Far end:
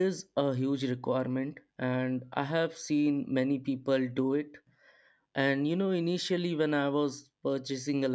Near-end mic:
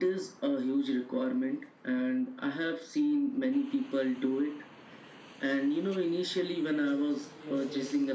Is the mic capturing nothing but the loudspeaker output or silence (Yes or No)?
No